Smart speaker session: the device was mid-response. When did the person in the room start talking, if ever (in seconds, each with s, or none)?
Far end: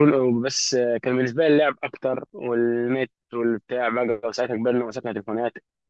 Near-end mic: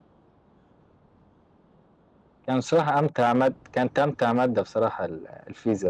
2.5 s